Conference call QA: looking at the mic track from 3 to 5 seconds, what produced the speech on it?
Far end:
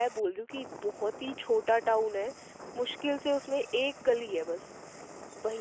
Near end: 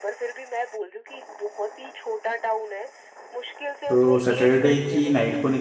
both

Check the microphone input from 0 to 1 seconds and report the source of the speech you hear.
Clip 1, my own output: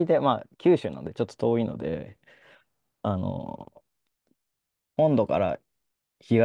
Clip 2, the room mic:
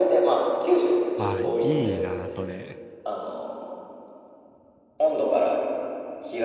echo only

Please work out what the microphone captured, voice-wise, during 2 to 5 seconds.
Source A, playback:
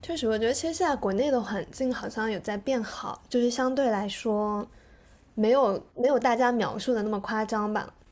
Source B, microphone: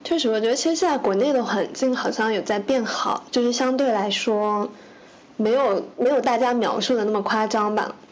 echo only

